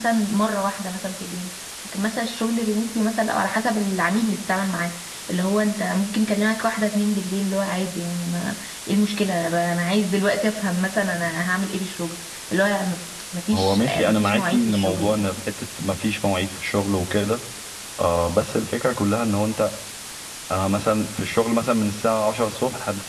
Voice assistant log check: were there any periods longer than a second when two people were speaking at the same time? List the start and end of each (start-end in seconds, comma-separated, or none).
13.5-15.3